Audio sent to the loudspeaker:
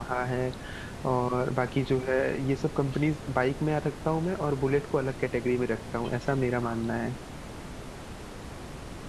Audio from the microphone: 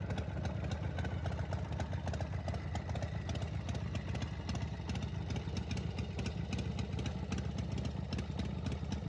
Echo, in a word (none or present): none